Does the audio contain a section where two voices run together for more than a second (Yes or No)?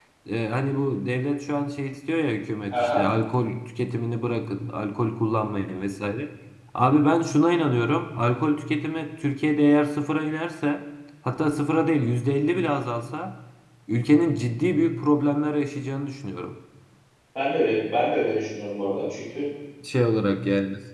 No